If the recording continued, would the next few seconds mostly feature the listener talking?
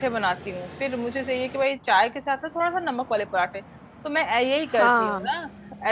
No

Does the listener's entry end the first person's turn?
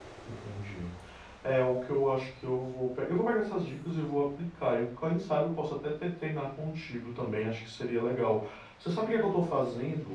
No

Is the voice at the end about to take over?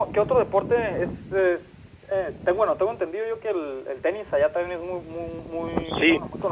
Yes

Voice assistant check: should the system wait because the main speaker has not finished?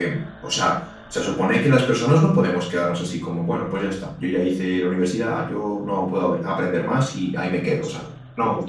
No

